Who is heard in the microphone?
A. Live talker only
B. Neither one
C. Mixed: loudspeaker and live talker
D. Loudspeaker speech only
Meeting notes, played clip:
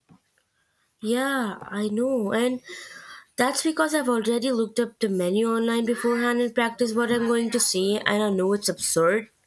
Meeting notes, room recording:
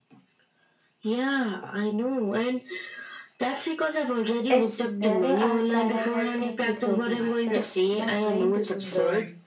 C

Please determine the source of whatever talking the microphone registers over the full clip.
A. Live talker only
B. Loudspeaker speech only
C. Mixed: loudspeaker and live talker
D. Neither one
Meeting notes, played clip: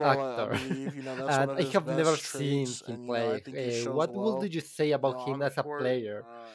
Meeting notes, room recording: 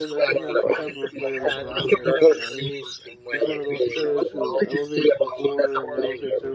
C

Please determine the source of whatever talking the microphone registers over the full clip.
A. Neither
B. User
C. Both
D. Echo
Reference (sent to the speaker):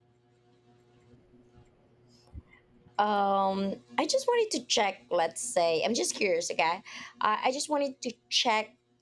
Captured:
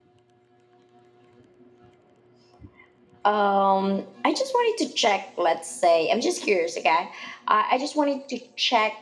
D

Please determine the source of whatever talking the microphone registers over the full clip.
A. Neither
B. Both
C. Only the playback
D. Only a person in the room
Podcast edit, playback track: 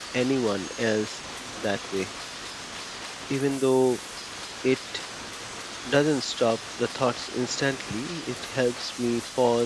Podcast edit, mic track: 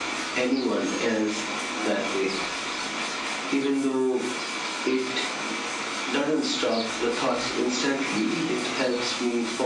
C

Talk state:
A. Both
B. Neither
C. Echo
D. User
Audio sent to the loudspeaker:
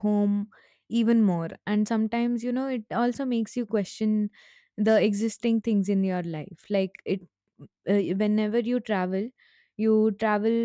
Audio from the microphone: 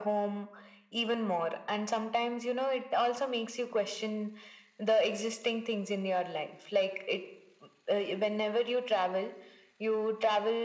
C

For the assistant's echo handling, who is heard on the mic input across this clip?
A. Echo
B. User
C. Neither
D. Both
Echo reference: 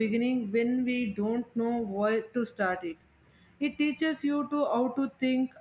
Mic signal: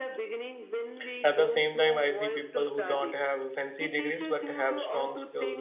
D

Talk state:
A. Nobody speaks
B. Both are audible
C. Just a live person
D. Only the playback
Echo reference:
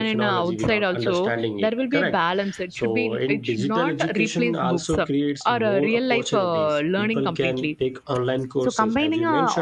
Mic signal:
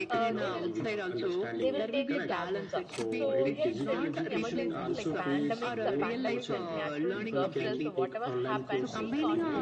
B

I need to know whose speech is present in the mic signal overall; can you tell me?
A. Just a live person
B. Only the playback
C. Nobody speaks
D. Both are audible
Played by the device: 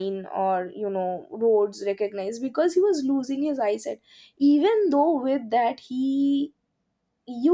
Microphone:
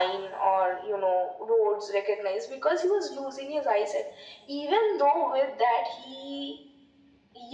B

